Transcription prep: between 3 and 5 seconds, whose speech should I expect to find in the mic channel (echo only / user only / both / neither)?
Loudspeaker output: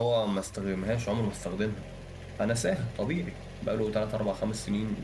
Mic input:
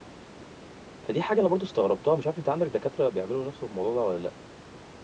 user only